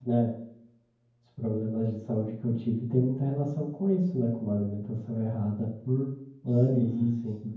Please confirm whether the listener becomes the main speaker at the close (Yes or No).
Yes